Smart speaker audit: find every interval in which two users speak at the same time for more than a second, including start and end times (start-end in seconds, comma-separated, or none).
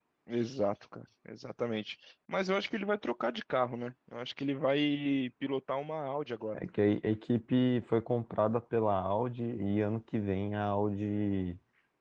none